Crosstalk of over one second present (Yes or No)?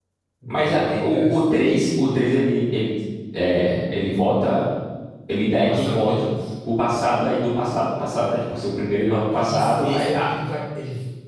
Yes